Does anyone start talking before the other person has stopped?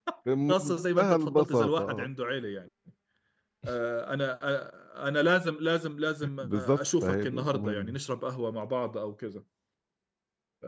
Yes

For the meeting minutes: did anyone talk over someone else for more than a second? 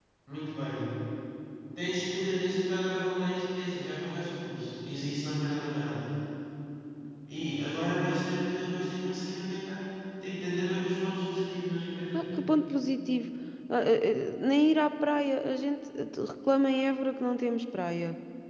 No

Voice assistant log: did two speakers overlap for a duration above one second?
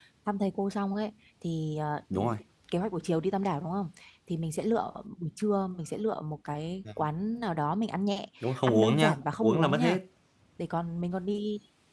Yes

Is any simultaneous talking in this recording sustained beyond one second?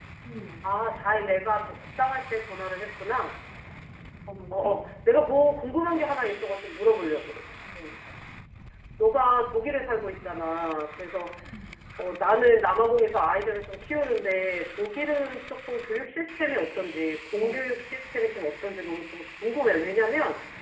No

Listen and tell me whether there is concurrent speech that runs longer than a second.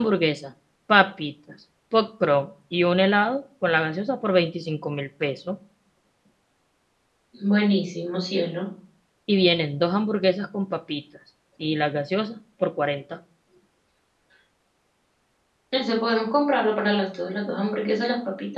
No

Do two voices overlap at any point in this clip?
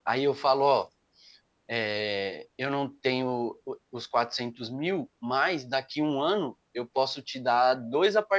No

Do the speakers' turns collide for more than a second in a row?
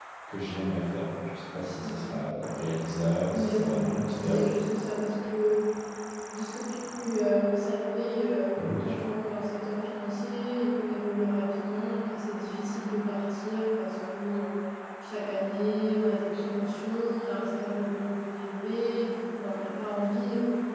Yes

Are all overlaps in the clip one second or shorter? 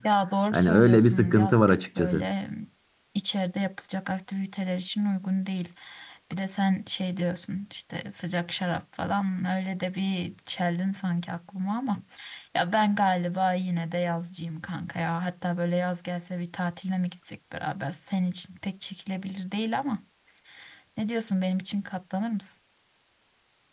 No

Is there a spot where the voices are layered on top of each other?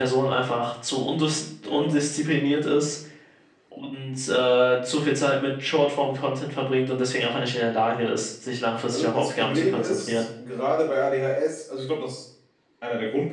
Yes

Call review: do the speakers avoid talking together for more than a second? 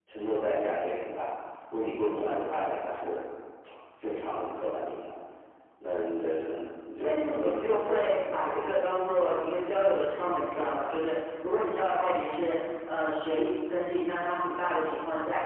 No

